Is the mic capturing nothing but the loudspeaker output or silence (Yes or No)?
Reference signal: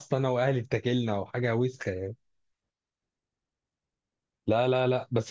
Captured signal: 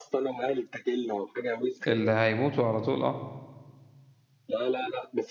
No